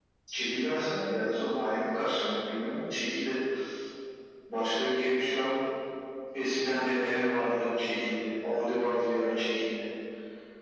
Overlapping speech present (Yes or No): Yes